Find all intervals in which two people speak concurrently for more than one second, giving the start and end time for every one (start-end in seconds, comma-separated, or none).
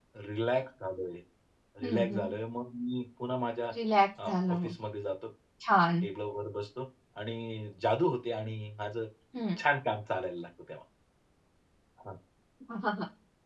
none